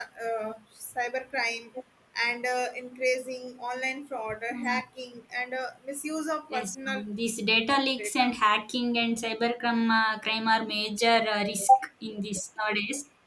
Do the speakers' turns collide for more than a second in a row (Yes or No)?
No